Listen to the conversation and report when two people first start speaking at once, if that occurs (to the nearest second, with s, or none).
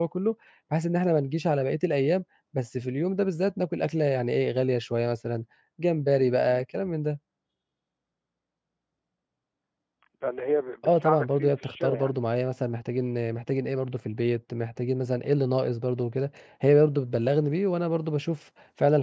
11 s